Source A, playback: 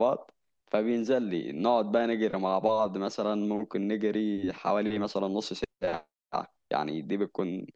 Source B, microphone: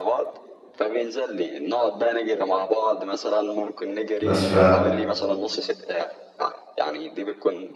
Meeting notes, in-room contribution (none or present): present